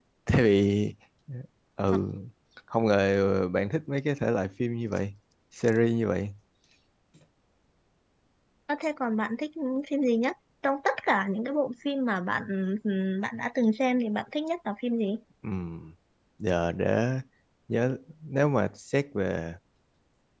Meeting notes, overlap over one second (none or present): none